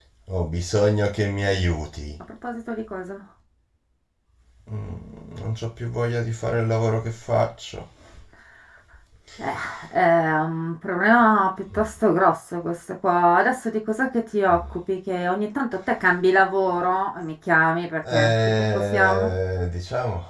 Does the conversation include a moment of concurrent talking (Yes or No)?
Yes